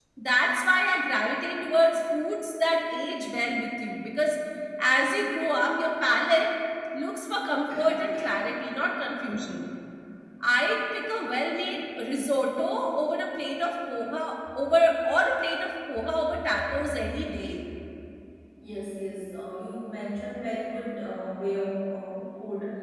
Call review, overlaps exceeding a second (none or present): none